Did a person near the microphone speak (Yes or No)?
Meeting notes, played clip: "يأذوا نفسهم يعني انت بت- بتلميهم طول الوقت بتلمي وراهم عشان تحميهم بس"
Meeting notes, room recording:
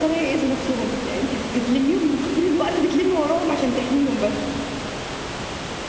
No